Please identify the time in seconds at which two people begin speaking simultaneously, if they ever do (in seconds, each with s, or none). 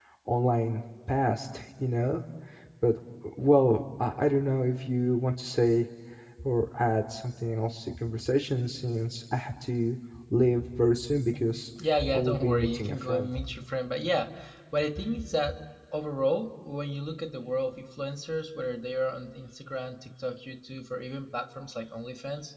12.1 s